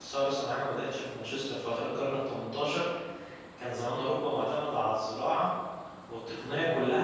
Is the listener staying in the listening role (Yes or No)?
Yes